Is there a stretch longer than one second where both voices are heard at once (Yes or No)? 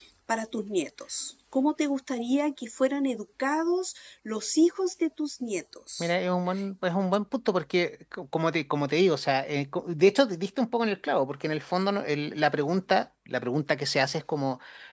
No